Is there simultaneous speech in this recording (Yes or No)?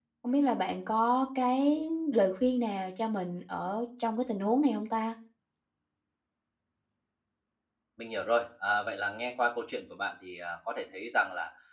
No